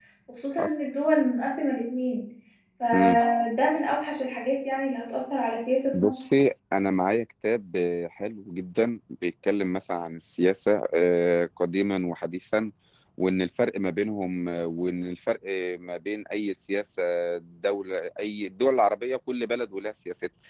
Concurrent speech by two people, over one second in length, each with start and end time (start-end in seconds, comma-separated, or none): none